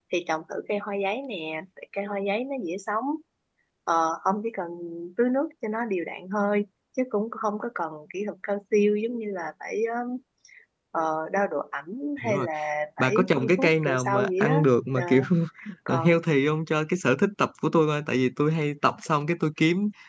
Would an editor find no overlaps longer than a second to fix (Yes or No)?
No